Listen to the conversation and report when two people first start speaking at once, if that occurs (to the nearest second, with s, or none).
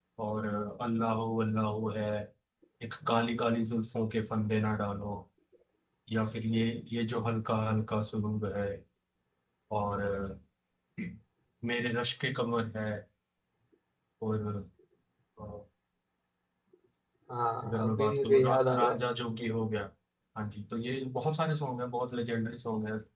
18 s